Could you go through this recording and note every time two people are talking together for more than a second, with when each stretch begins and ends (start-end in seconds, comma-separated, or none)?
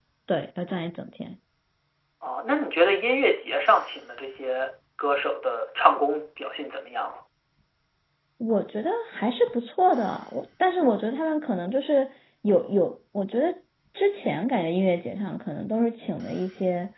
none